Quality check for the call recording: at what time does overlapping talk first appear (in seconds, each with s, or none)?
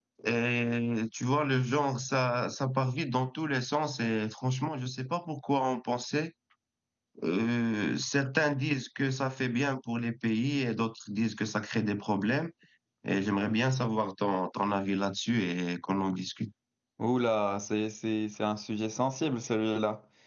none